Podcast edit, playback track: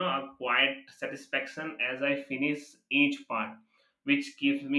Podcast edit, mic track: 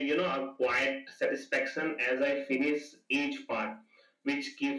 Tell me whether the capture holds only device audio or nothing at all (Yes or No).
Yes